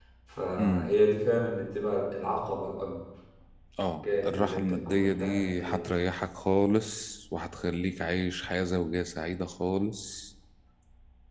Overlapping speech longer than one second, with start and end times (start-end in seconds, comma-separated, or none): 4.0-5.8